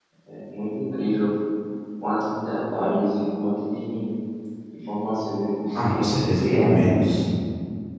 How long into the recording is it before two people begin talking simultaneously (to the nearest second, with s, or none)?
6 s